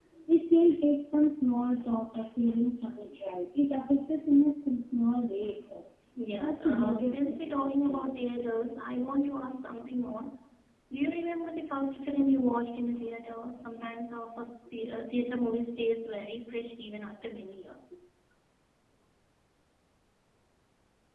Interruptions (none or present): present